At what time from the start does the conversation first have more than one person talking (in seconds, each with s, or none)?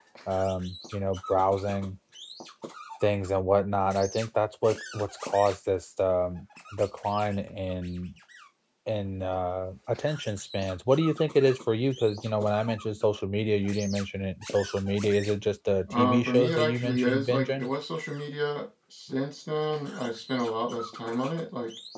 15.9 s